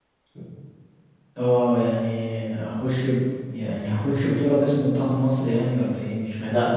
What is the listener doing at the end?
taking over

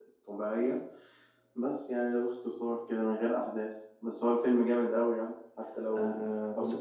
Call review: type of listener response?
taking over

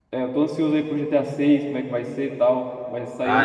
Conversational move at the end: taking over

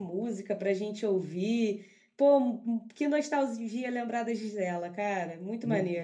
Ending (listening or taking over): taking over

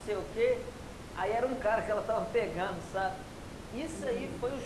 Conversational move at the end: listening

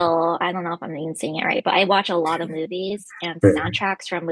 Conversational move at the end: listening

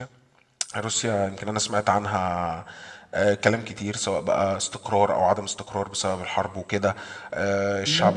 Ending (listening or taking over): listening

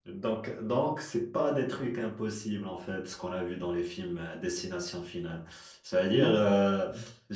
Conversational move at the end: listening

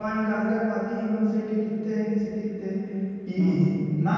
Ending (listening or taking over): listening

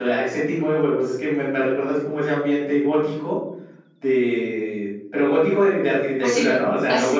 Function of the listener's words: taking over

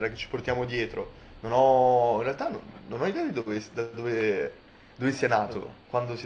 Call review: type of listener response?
listening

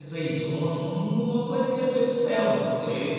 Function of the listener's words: taking over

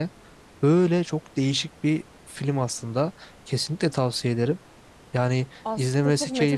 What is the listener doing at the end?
taking over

